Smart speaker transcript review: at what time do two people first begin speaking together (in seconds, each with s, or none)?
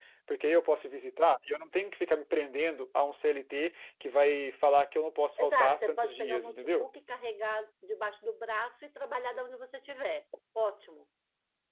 5.4 s